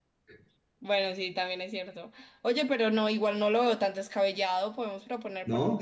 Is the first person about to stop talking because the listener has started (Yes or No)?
Yes